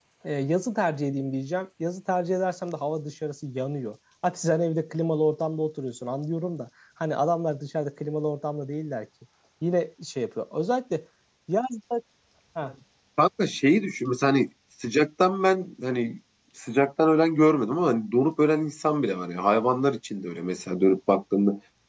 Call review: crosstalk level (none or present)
none